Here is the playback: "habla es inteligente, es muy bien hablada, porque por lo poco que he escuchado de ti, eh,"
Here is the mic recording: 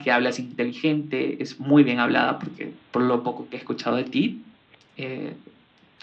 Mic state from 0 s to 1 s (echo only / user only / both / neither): echo only